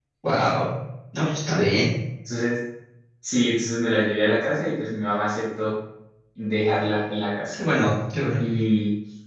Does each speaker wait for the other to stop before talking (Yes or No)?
Yes